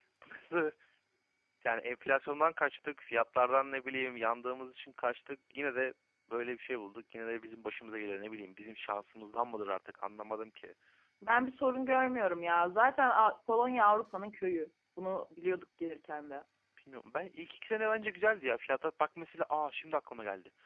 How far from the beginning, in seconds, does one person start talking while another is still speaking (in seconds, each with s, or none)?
none